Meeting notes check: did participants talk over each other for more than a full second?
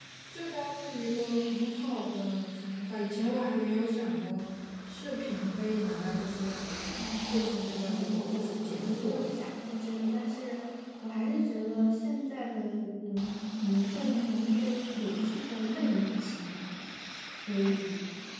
Yes, from 7.8 s

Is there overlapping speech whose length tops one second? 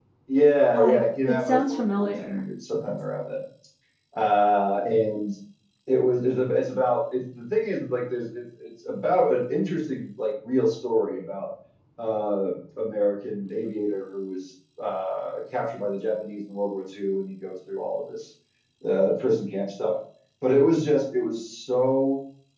Yes, from 0.8 s

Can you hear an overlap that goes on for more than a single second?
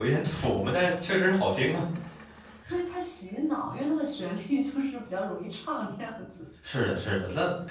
No

